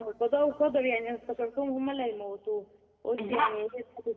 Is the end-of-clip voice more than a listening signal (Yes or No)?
No